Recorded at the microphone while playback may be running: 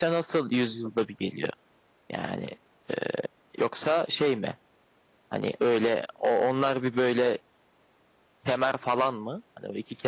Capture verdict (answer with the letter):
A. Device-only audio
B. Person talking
B